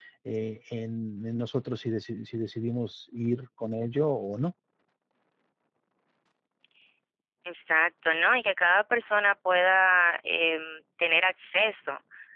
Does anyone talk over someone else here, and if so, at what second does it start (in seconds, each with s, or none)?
none